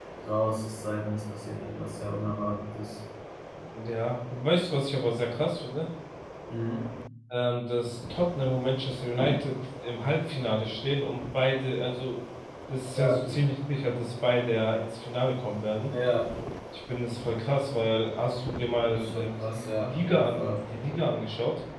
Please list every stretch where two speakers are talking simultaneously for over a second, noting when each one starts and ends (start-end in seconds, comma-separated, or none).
18.9-20.6